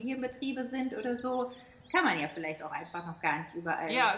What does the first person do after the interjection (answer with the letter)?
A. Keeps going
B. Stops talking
B